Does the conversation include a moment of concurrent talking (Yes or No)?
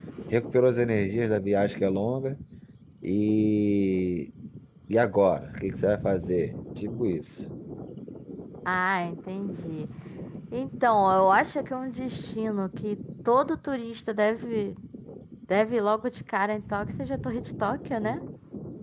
No